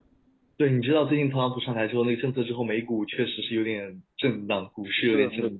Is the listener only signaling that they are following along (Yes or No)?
No